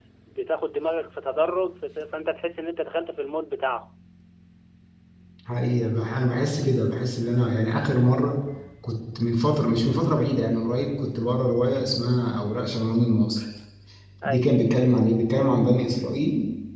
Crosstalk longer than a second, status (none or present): none